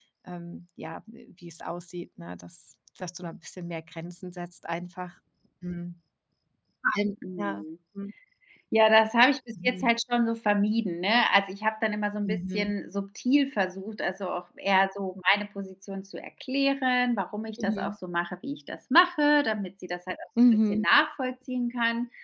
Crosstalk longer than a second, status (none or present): none